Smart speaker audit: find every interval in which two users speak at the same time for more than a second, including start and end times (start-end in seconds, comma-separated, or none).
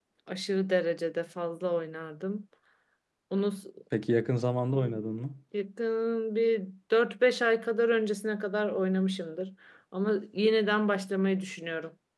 none